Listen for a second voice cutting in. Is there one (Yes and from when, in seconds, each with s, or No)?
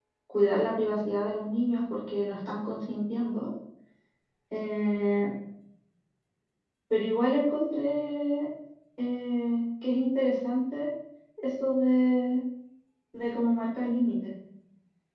No